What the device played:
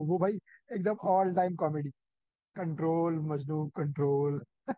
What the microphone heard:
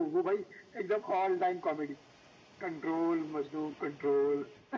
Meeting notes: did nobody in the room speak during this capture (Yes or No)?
Yes